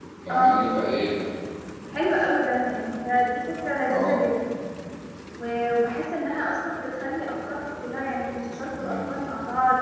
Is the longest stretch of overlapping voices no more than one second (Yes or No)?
Yes